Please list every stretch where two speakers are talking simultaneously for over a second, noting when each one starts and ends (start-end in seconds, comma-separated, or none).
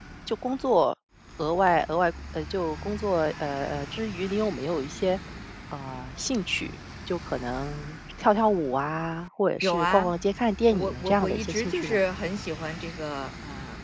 10.7-12.0